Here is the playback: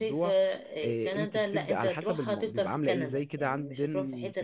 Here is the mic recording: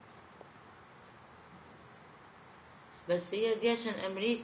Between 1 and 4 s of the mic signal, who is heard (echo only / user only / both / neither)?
user only